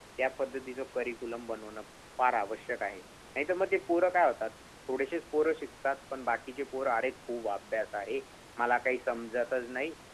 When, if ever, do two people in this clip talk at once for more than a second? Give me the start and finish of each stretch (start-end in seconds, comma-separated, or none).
none